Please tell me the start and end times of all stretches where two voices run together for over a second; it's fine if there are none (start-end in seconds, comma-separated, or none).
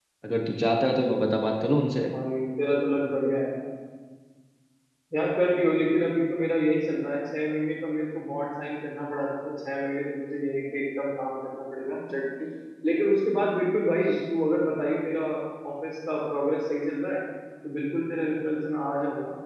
none